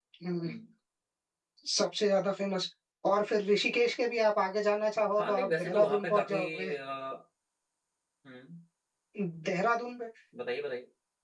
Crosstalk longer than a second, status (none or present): present